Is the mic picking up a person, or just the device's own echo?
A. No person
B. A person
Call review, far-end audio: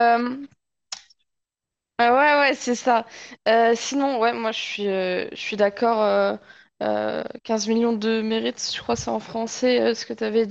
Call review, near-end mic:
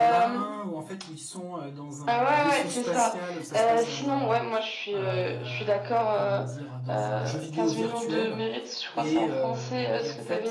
B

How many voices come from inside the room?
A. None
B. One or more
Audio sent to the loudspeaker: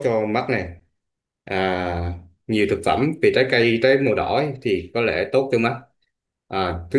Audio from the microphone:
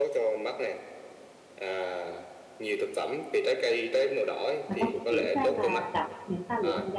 B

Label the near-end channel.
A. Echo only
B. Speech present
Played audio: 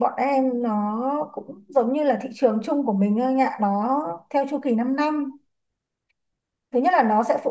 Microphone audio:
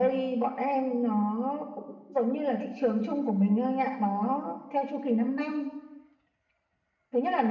A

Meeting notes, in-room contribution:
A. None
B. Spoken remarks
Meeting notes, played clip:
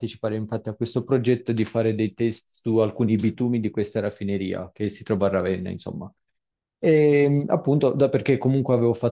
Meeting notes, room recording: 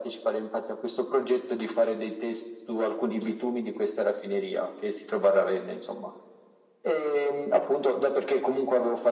A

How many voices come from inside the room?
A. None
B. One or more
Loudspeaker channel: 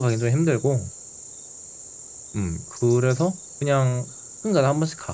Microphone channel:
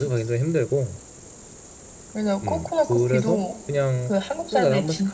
B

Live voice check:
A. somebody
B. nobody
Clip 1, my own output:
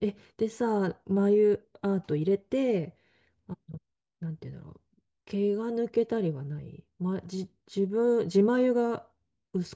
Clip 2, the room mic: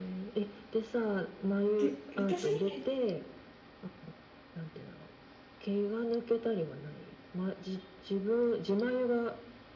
A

